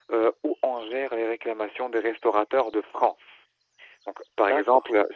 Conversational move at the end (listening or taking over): listening